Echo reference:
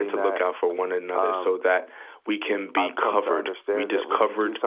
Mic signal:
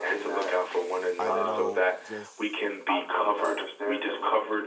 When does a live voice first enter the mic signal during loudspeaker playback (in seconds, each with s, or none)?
1.2 s